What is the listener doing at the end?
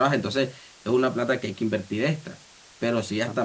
listening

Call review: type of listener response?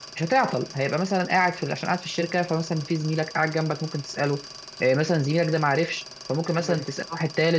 listening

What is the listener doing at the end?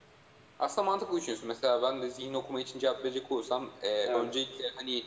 listening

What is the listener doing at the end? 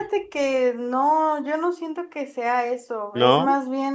listening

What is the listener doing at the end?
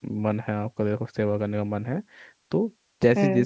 listening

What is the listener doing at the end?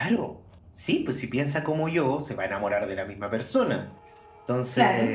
listening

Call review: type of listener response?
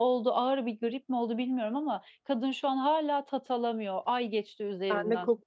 taking over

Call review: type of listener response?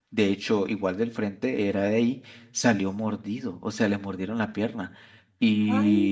listening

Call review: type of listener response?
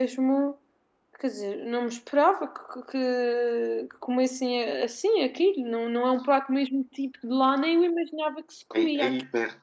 taking over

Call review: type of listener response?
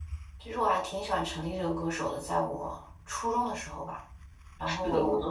taking over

